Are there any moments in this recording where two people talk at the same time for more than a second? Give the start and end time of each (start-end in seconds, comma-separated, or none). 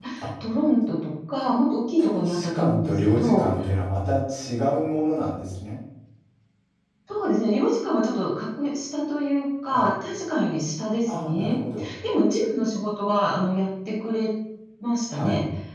2.0-3.4